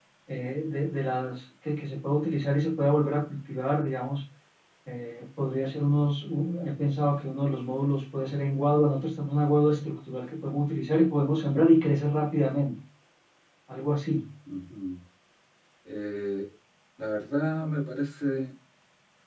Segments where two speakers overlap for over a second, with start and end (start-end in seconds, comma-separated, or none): none